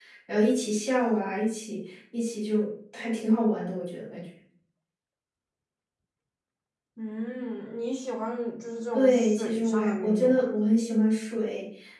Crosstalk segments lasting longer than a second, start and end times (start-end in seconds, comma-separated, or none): 8.9-10.5